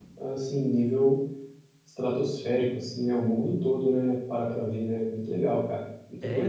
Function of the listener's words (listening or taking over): taking over